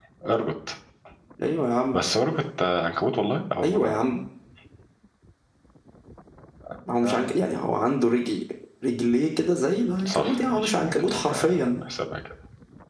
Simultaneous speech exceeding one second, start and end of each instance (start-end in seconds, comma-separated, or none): 10.1-11.8